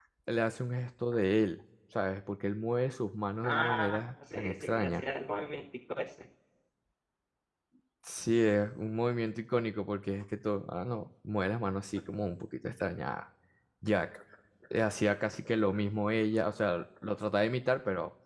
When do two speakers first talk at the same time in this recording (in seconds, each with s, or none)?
3.4 s